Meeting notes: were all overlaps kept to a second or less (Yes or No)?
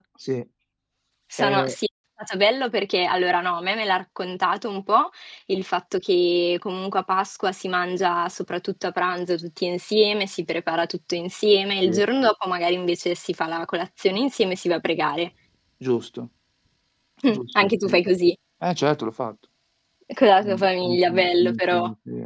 No